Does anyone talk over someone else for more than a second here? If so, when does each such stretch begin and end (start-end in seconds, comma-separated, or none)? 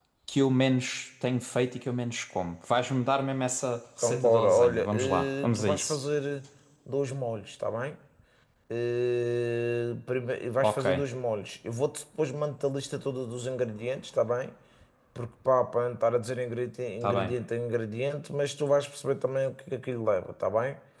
4.0-6.0